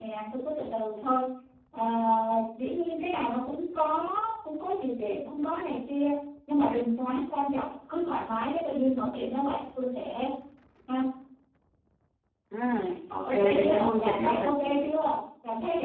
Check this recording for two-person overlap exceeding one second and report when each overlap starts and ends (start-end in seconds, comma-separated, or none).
13.2-14.9